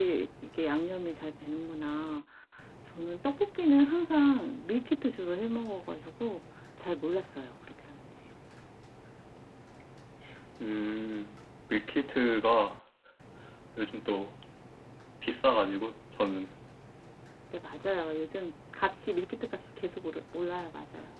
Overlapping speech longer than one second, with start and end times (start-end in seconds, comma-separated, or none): none